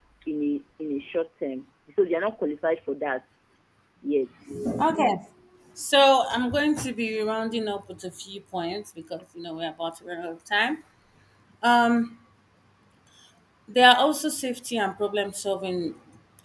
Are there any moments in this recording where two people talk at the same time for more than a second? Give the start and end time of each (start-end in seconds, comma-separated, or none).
none